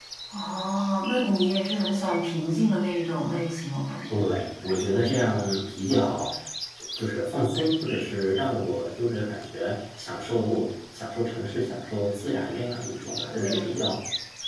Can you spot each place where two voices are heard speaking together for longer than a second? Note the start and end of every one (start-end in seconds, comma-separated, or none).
none